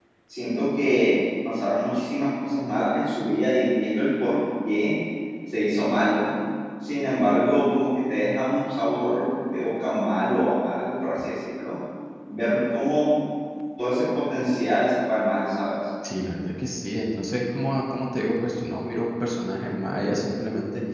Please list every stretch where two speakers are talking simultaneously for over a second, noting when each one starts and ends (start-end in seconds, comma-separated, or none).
none